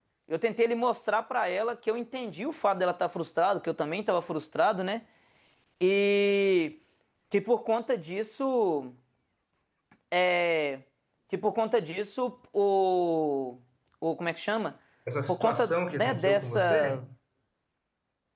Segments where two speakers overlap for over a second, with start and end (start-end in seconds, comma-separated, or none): 15.3-17.0